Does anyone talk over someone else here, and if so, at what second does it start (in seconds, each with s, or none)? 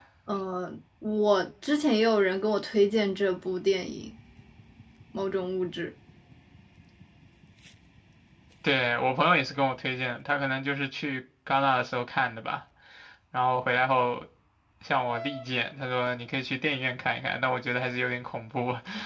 none